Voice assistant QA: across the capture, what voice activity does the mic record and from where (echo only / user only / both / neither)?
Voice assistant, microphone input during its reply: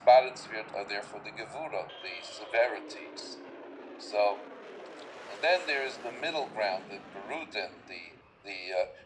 echo only